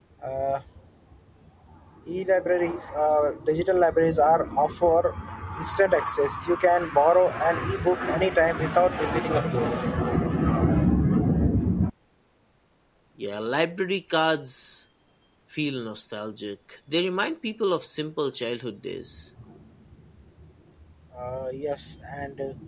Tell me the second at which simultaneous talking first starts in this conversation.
none

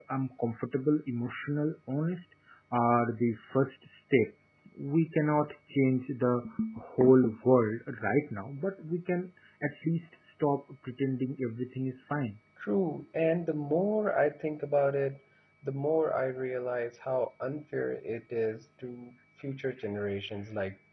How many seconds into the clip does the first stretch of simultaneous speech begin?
none

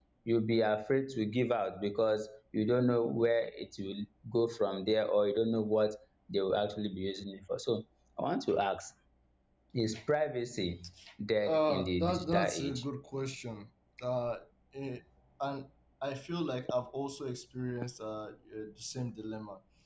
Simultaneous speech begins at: 11.4 s

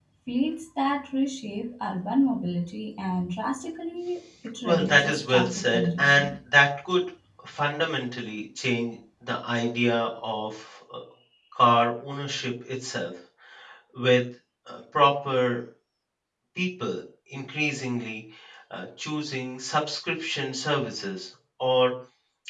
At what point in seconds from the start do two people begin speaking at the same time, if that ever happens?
4.6 s

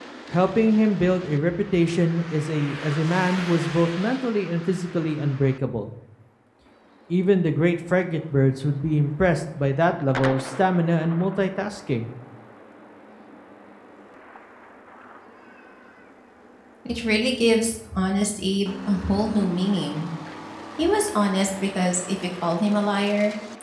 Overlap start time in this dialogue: none

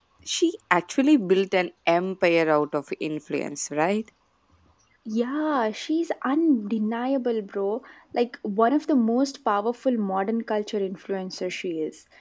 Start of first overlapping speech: none

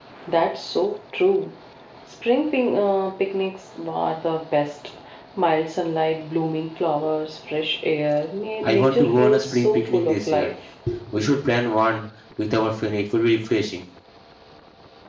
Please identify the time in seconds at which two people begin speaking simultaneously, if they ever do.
8.6 s

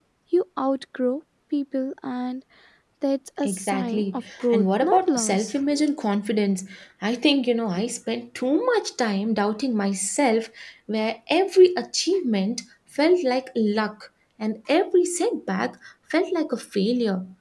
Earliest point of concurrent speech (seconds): 3.4 s

